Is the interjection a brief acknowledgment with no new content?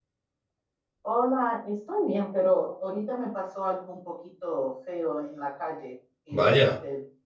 Yes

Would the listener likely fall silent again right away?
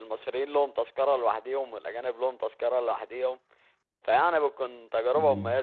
Yes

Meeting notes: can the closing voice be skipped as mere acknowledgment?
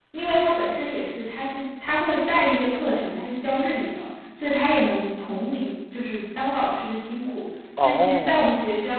Yes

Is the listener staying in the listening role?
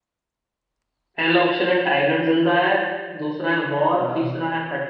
Yes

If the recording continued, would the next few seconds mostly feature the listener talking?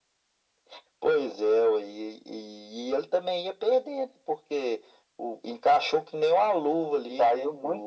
Yes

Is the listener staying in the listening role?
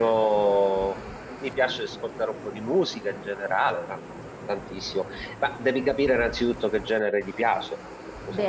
No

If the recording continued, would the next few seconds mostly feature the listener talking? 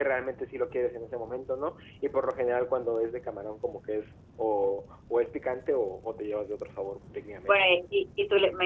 Yes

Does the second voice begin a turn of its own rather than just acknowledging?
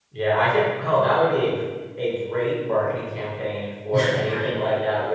No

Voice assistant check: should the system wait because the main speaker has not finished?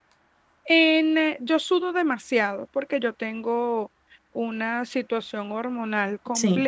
Yes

